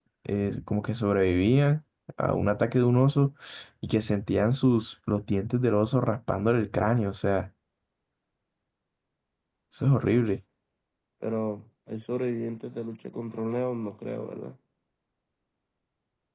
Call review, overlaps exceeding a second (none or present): none